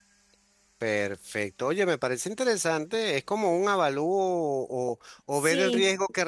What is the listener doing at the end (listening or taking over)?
listening